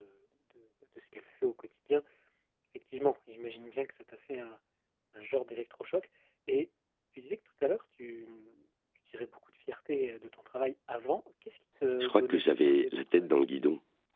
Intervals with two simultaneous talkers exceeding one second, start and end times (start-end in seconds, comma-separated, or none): 12.0-13.4